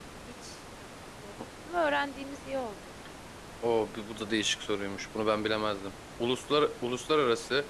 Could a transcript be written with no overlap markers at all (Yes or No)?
Yes